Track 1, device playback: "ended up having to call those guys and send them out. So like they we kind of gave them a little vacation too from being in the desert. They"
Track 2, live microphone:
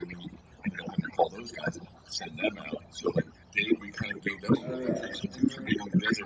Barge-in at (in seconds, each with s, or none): 4.6 s